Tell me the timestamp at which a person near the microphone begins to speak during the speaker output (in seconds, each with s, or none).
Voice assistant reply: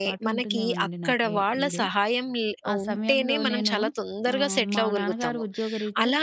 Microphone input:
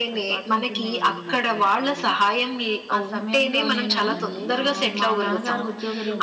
3.6 s